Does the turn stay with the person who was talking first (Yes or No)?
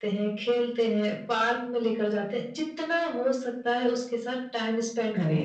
No